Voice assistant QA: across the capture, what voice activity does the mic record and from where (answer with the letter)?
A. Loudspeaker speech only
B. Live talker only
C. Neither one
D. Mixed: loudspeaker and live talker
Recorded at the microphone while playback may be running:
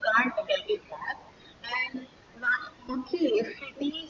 A